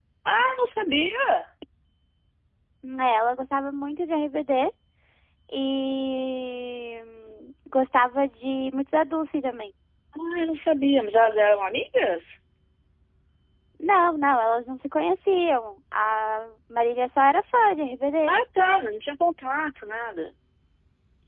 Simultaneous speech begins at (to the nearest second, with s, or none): none